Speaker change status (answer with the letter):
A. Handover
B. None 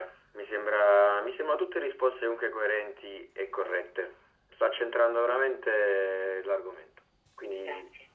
B